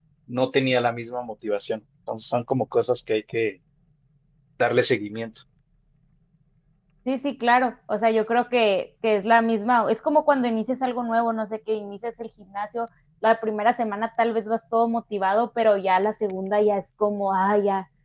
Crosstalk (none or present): none